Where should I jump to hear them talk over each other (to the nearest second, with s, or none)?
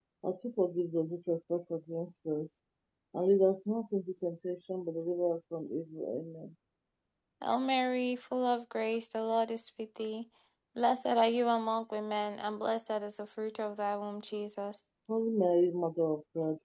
none